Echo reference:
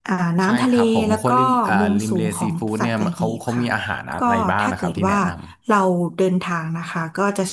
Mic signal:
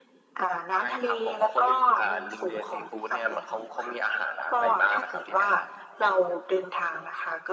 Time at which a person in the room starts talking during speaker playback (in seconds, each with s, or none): none